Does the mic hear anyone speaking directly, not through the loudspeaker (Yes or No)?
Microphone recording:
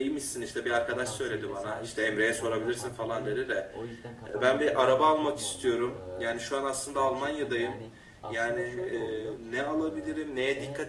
Yes